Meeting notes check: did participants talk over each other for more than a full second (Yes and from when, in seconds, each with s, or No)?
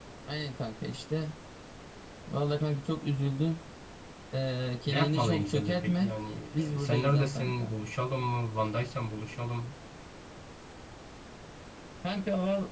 Yes, from 4.9 s